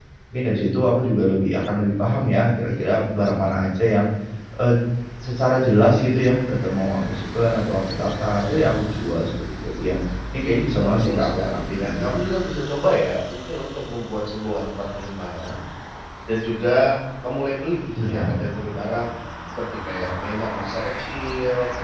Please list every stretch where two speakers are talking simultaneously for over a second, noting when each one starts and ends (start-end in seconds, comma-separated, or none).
10.8-12.1